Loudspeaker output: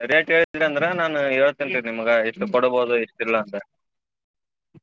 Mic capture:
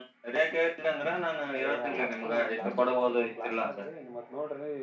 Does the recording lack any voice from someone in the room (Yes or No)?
No